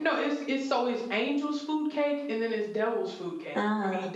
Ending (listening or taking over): listening